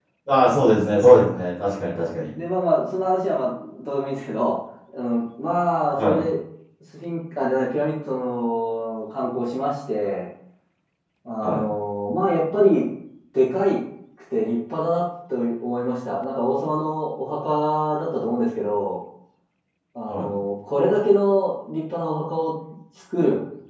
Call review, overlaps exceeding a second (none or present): none